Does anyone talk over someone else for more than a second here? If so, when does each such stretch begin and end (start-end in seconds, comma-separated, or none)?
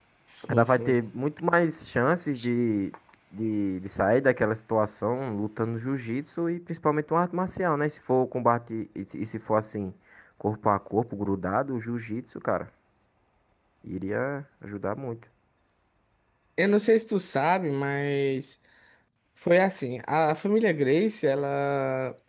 none